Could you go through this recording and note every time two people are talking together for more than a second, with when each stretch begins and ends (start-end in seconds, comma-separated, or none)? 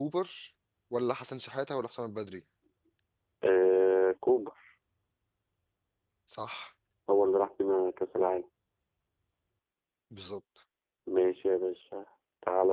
none